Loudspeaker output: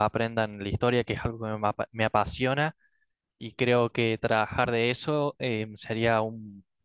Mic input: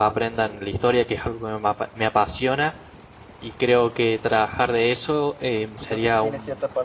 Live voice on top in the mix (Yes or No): No